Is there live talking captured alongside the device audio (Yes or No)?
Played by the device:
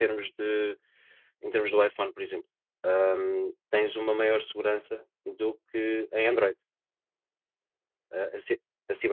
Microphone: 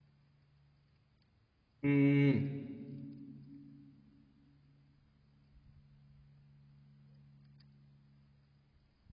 Yes